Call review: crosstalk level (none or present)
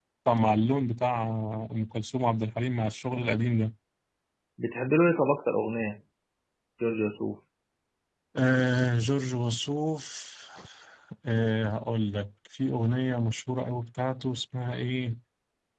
none